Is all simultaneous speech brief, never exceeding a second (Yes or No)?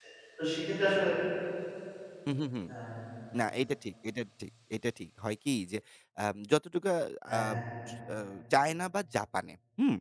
Yes